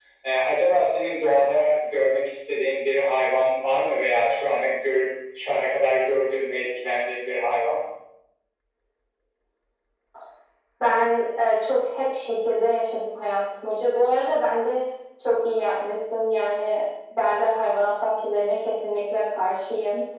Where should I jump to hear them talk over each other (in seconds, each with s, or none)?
none